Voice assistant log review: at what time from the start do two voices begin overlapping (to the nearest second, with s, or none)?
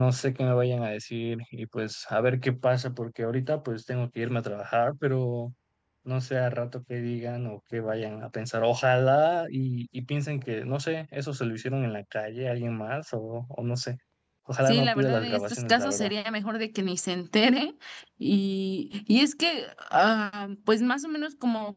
15 s